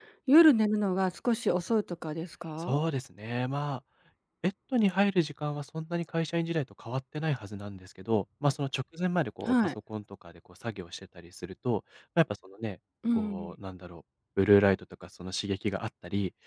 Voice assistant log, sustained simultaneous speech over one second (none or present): none